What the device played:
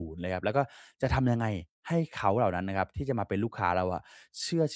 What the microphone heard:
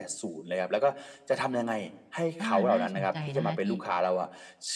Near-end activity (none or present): present